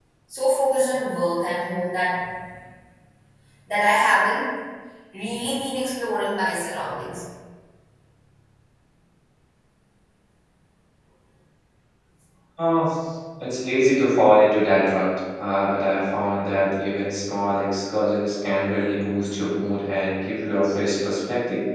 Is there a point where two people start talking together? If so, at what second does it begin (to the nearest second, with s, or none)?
none